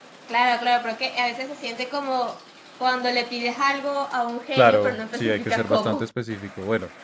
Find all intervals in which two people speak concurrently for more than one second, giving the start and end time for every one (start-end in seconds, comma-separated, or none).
4.5-6.0